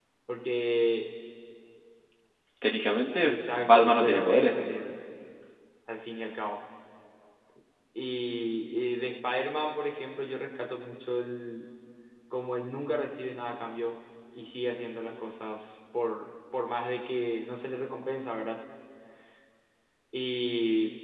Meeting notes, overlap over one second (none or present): present